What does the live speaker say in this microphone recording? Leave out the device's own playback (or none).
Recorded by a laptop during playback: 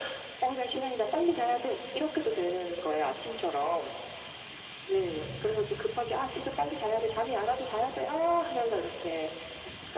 none